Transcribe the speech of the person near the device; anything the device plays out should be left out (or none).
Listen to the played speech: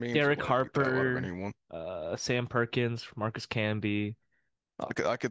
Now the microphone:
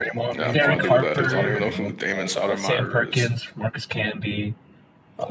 Yeah, I have no idea what that is. I don't even know who Damon Stoudemire is.